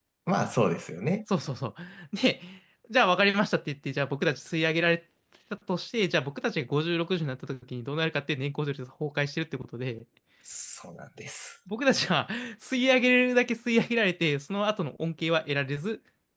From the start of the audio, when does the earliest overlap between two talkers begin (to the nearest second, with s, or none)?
none